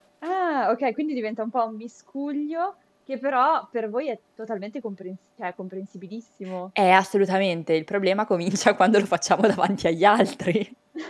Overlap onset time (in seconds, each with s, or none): none